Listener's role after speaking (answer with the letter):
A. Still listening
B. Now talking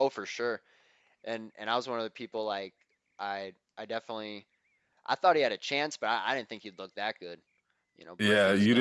B